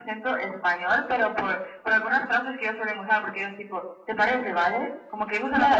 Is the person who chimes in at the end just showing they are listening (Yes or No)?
No